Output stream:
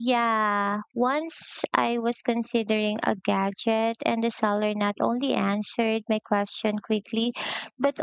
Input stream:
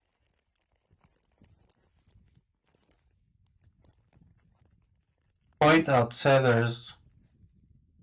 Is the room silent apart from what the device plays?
No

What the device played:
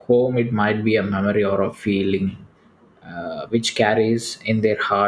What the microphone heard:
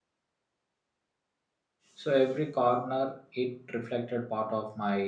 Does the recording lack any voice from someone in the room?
No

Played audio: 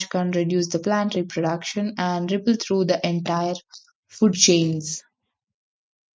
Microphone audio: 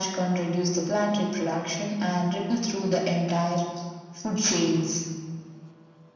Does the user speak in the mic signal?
No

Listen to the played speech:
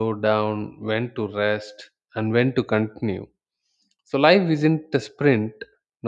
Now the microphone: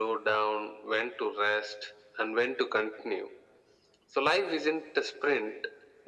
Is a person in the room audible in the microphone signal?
No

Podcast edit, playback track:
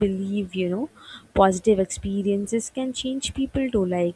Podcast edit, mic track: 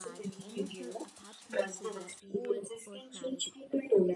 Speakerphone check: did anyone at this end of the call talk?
Yes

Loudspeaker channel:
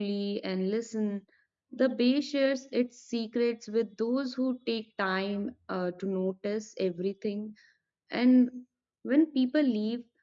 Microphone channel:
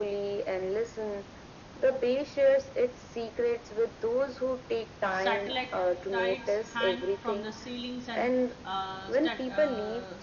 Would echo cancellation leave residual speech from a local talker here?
Yes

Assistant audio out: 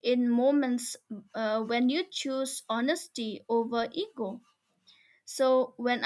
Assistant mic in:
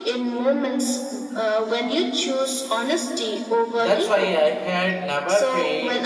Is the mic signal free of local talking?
No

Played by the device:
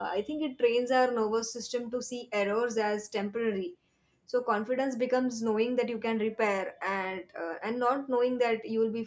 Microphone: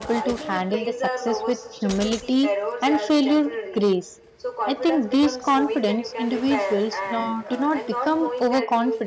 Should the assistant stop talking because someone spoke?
Yes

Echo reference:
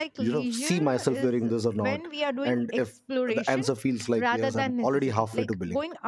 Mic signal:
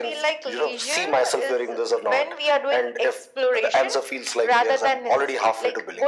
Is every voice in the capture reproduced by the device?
Yes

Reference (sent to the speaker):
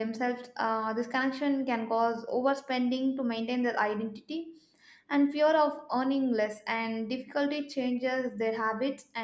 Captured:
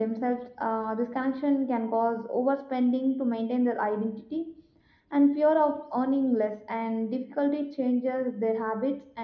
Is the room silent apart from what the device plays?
Yes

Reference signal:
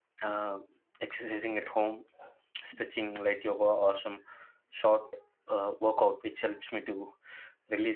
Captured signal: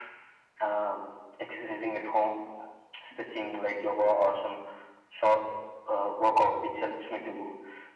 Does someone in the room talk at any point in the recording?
No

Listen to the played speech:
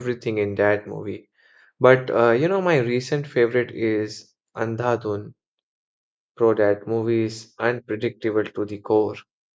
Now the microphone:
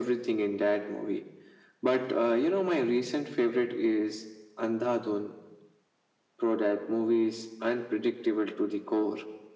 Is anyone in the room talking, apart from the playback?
No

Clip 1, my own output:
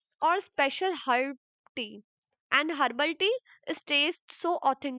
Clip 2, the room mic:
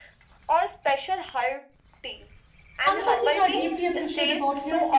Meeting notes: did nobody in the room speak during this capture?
No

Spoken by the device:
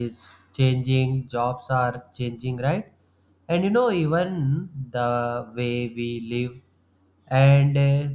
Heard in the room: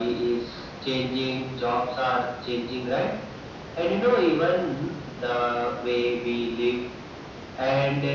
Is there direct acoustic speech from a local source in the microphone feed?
No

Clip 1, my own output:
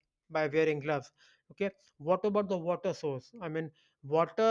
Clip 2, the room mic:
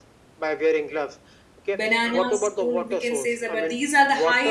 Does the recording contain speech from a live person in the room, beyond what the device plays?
Yes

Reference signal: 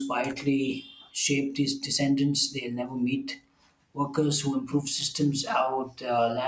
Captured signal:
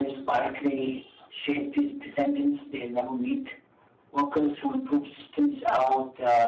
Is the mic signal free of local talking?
Yes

